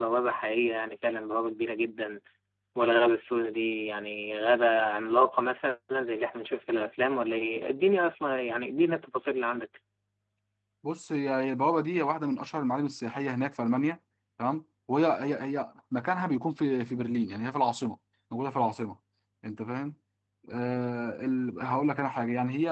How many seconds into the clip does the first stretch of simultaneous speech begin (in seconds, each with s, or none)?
none